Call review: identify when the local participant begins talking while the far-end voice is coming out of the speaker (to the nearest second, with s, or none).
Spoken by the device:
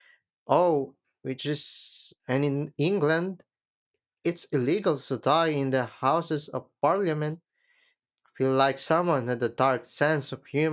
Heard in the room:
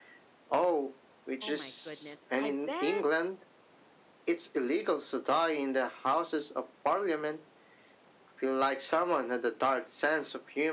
1 s